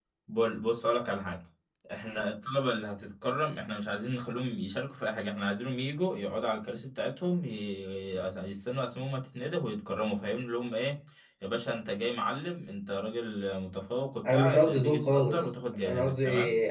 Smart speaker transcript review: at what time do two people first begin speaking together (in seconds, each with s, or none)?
14.2 s